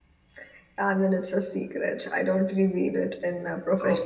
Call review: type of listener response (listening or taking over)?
taking over